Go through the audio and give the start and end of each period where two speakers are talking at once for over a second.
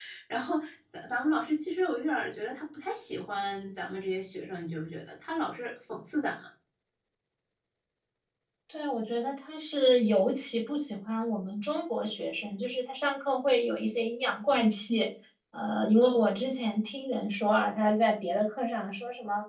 none

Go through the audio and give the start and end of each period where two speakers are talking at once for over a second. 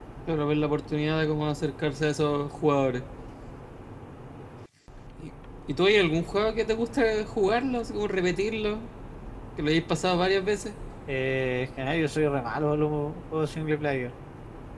none

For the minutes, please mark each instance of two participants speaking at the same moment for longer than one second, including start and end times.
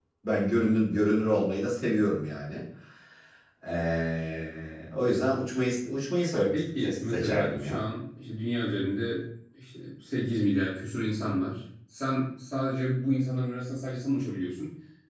6.5-7.8

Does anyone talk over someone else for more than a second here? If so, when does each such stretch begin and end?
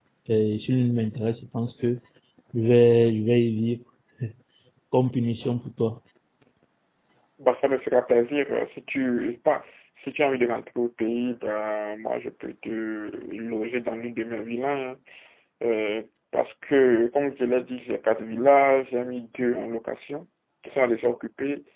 none

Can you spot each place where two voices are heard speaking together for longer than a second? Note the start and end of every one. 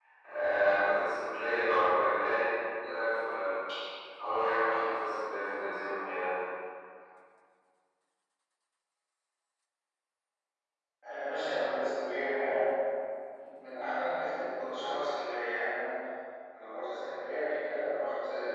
none

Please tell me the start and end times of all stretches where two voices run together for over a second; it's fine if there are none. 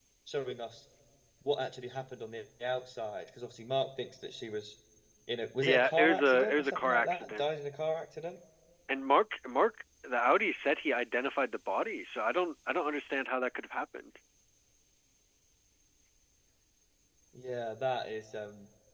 5.6-7.4

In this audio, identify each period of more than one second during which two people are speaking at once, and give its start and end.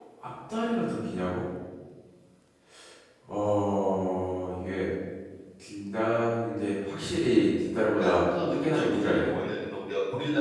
8.0-9.3

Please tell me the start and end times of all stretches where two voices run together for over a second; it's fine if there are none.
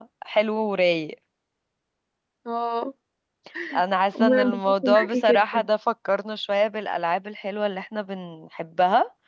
4.2-5.6

